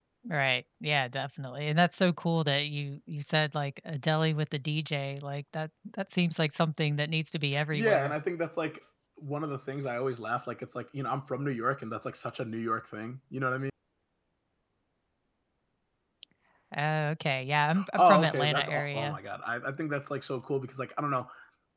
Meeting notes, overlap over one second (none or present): present